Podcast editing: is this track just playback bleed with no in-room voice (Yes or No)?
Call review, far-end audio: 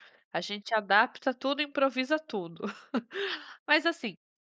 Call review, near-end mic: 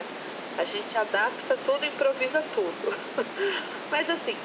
Yes